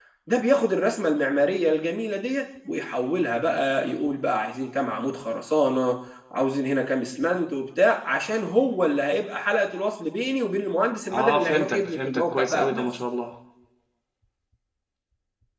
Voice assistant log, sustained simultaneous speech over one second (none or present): present